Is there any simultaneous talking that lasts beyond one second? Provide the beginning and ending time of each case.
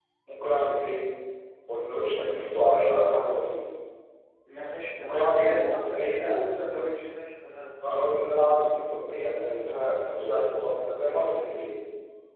5.0-6.3

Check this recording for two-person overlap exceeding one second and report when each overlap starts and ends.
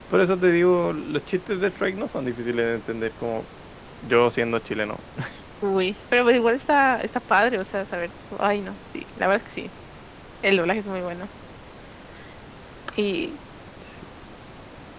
none

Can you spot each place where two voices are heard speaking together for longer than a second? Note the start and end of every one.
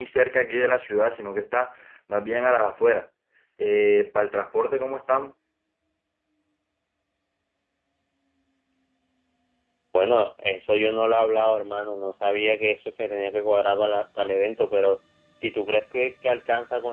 none

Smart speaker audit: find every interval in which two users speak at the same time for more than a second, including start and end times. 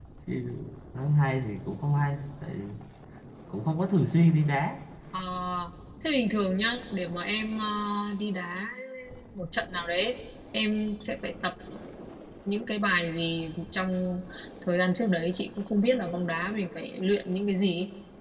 none

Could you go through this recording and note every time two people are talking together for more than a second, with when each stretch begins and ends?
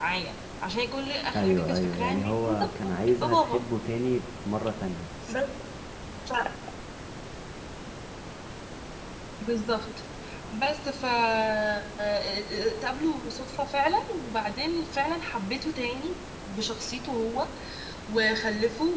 1.4-3.6

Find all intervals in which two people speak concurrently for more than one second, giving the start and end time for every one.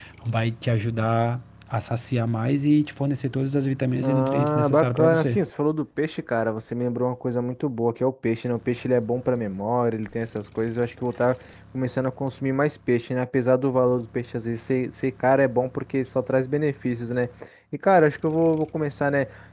4.0-5.4

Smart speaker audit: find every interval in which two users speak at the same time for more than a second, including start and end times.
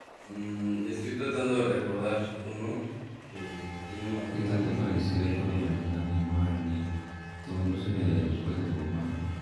4.3-5.7

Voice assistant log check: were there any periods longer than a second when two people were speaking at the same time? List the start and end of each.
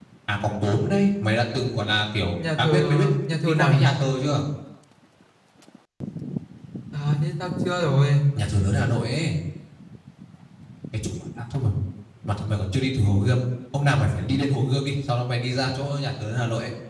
2.6-3.9

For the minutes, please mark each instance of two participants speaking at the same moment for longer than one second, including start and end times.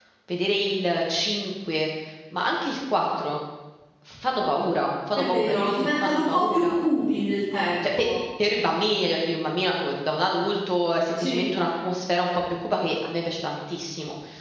5.2-6.8

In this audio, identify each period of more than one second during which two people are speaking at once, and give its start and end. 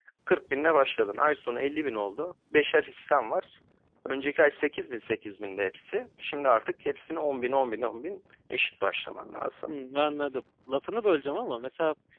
none

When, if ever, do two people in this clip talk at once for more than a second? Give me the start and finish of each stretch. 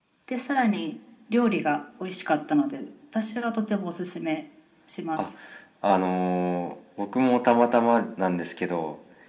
none

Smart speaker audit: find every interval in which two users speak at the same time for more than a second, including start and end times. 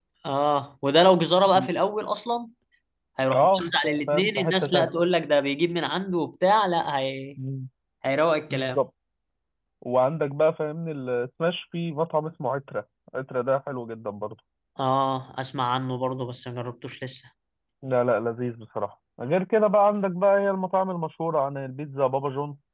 3.3-4.9

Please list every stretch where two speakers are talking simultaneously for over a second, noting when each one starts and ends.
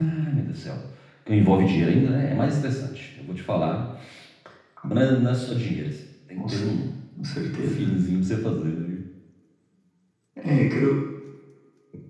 none

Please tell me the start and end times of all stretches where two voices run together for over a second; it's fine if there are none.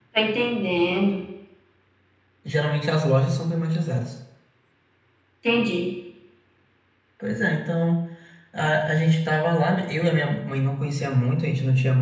none

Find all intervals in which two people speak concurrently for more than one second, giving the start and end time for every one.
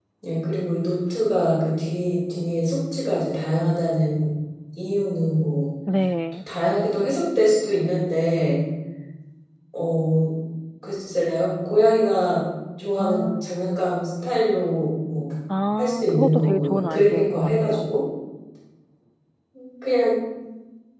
15.8-17.8

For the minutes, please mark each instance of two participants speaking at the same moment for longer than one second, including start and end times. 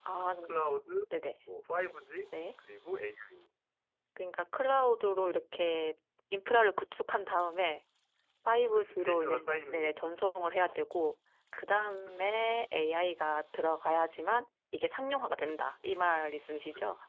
8.7-10.1

